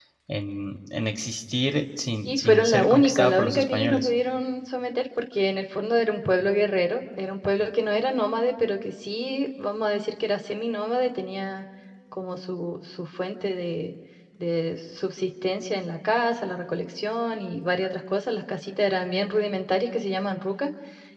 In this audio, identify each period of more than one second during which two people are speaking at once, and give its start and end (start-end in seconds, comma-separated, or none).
2.2-4.1